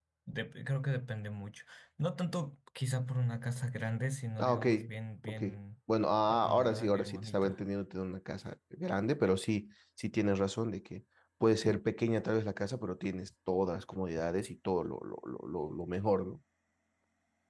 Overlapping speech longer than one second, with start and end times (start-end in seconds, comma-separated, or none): 6.3-7.6